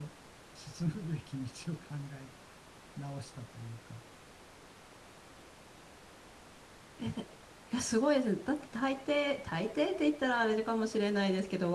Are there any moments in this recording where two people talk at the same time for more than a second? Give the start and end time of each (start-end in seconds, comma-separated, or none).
none